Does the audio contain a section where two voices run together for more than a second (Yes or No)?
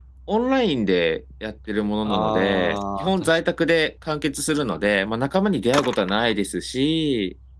Yes